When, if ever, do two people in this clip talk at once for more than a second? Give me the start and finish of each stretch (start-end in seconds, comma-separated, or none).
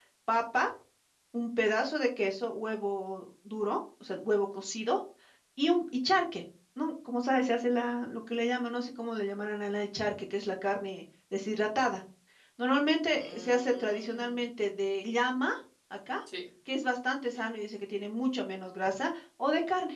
13.1-14.3